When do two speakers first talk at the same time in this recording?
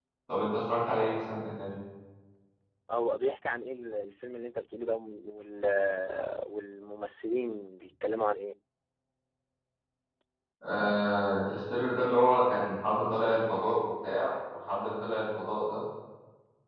none

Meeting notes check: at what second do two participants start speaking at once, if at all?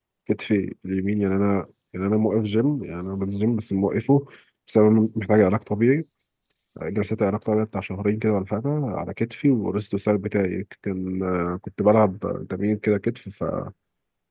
none

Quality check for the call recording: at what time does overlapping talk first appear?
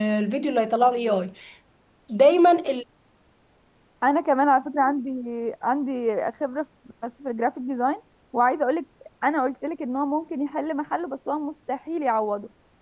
none

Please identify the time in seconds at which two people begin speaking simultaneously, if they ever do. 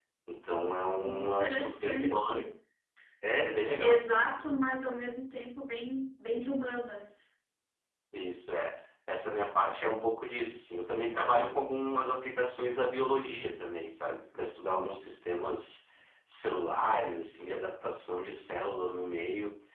1.1 s

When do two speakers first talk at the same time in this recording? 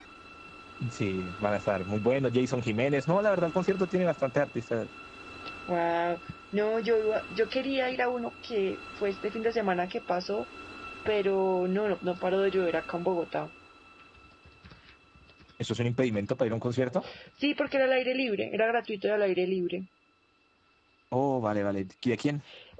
none

